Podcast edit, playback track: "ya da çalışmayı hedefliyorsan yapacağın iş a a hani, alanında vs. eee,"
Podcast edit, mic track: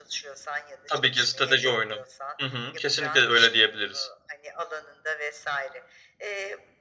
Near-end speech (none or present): present